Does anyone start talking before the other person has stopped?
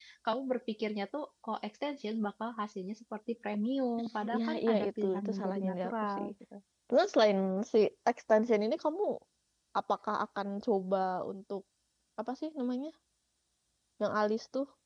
Yes, from 4.2 s

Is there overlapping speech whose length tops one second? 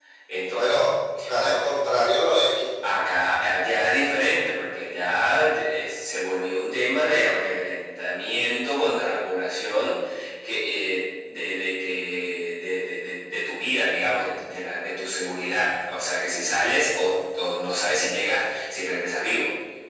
No

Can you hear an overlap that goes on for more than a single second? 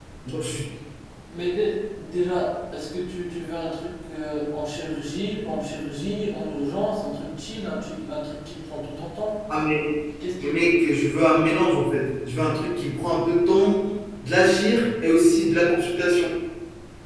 No

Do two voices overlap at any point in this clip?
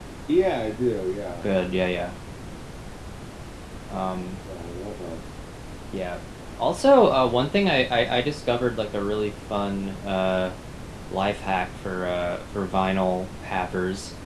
No

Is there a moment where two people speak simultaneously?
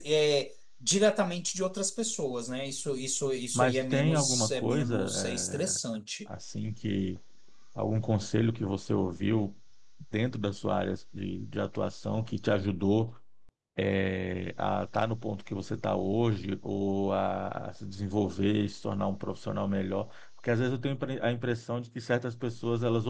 Yes, from 3.5 s

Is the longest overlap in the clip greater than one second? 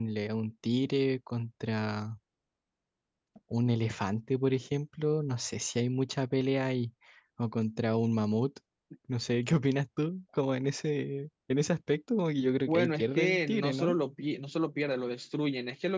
Yes, from 12.7 s

